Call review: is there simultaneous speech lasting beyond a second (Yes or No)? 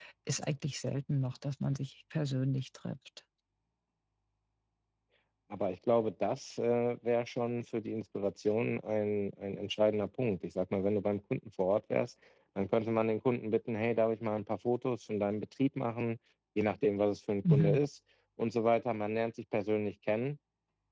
No